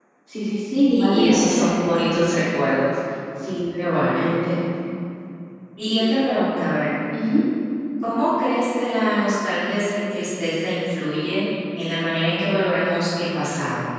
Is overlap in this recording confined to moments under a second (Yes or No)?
No